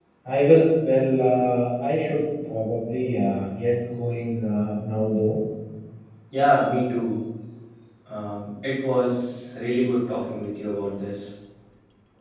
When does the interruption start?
none

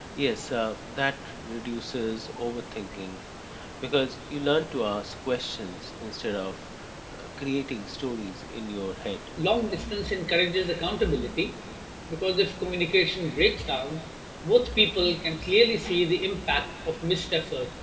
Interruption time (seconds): none

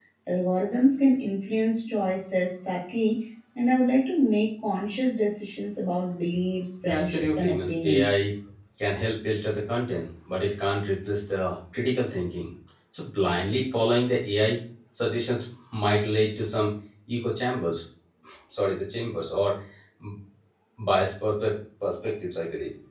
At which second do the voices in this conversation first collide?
6.8 s

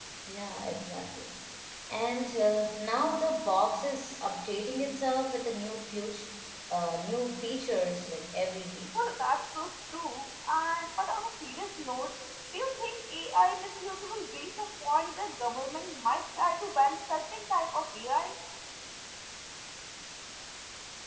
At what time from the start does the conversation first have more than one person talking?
none

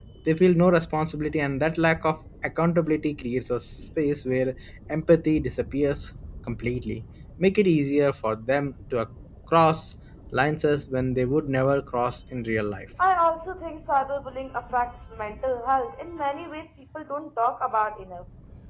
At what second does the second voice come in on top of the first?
none

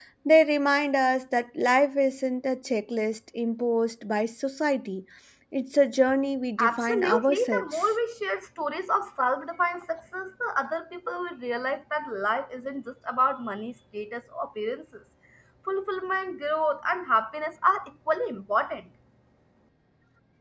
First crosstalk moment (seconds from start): 6.6 s

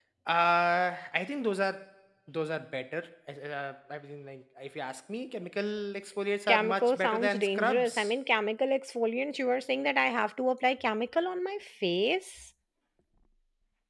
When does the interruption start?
6.5 s

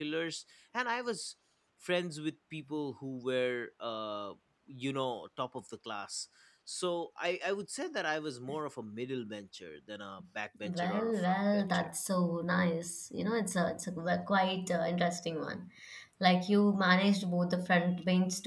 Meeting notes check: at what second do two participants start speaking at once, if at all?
10.6 s

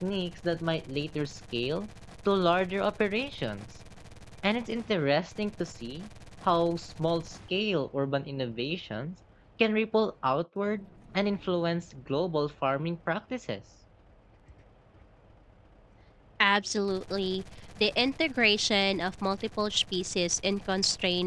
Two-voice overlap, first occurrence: none

